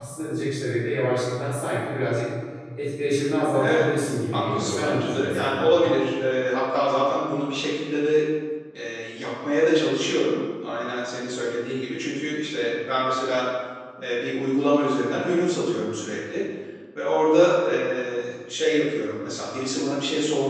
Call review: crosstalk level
present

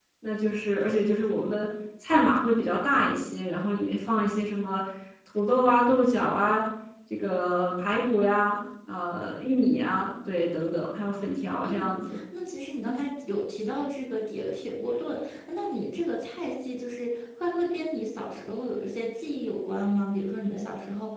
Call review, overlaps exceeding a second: none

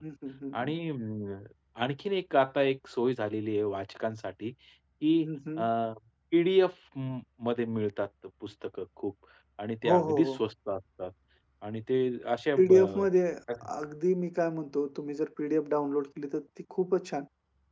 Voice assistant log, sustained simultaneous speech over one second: none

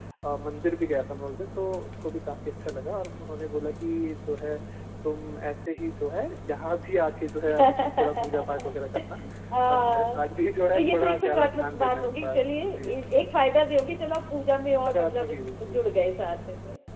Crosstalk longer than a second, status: present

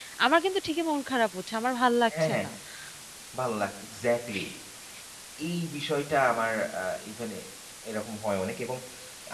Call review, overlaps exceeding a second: none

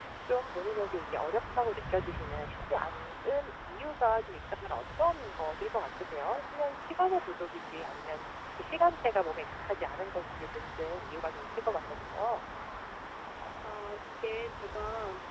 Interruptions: none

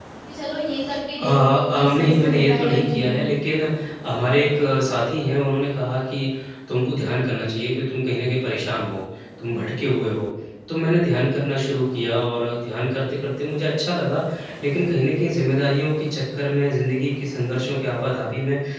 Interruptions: present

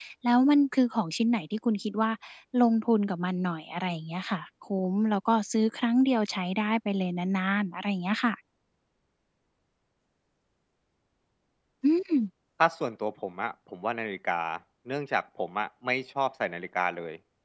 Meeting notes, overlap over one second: none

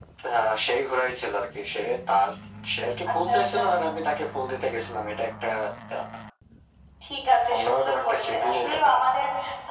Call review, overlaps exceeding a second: present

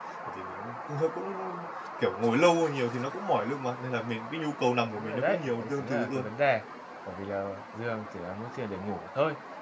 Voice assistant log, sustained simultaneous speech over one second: present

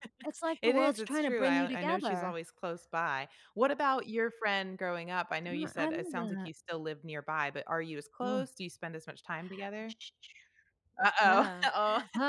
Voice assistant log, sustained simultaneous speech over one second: present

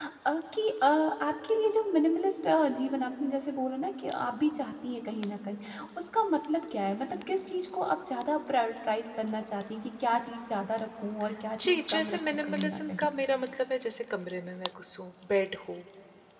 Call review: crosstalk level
present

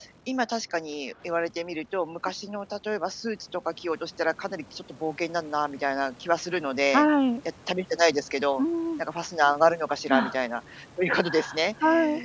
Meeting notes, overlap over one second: none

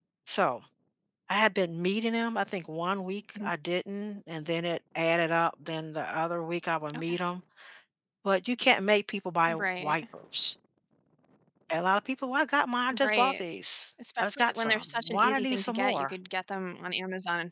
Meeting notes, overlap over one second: present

